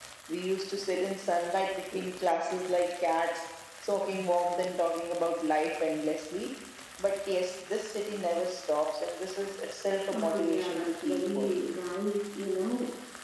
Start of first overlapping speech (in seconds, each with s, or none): 10.1 s